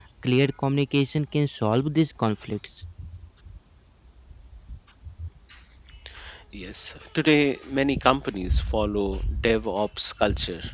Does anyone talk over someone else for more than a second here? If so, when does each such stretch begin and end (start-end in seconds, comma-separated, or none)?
none